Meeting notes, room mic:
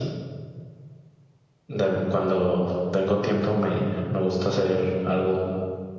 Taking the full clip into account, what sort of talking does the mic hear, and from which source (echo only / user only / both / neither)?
echo only